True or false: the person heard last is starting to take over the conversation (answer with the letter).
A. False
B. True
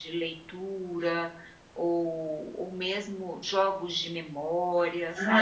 B